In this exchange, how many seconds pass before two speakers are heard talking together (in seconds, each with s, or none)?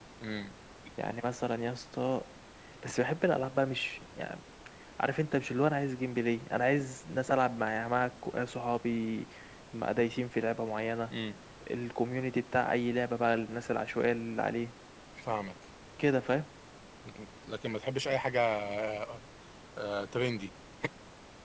none